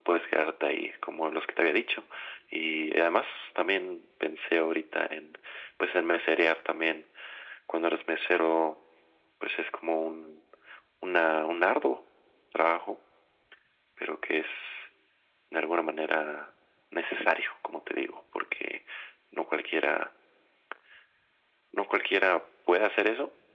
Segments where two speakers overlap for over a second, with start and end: none

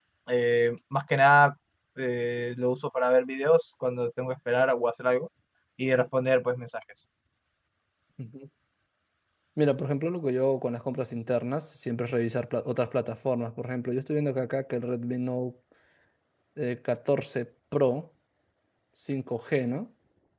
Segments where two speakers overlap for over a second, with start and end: none

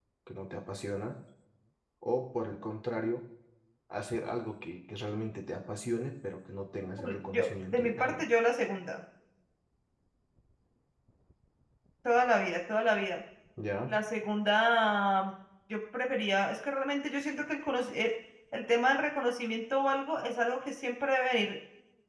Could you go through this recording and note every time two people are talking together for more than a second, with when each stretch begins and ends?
7.0-8.2

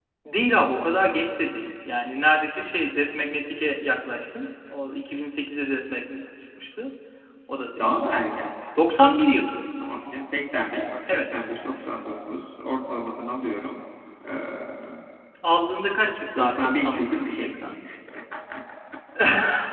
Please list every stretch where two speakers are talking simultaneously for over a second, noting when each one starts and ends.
16.4-17.6

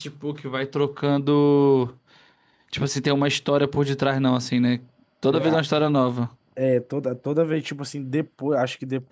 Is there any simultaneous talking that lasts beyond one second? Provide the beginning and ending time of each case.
none

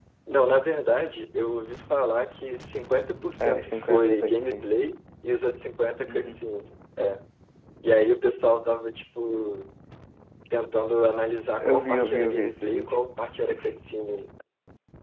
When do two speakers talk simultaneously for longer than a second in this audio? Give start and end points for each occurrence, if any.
3.4-4.7, 11.6-12.9

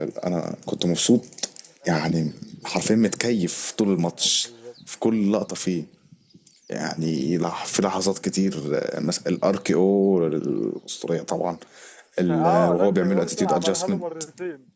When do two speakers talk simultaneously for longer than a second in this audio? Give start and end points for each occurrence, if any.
12.3-14.0

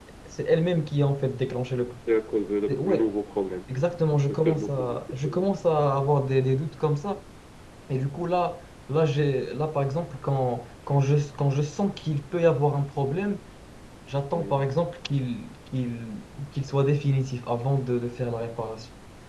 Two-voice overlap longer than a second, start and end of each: 4.1-5.5

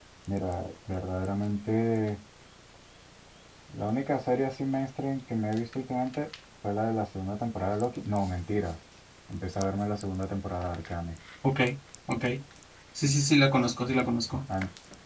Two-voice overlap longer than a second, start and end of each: none

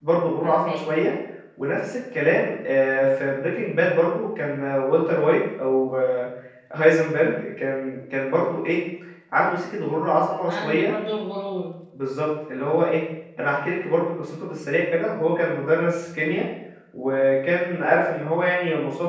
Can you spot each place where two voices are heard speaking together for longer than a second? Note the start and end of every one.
none

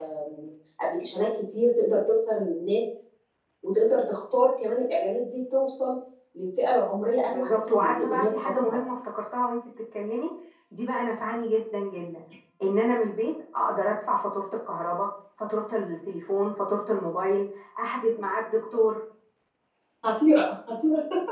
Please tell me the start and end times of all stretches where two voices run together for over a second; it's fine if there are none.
7.3-8.8

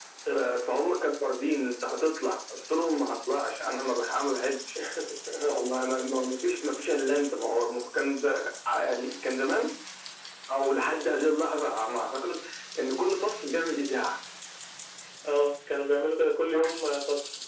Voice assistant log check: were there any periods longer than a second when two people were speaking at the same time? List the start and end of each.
none

